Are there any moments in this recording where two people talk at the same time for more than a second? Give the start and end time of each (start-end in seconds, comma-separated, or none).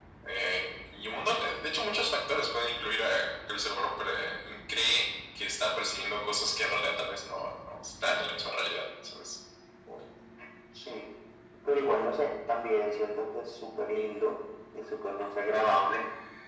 none